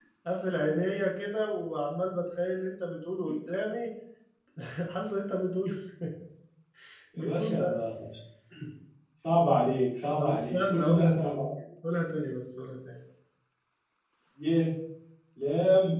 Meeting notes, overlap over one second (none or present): present